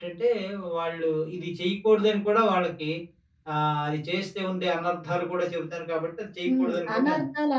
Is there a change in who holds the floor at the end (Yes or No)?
Yes